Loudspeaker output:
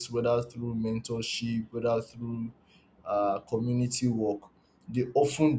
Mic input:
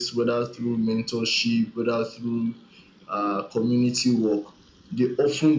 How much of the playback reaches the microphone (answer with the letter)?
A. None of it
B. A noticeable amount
B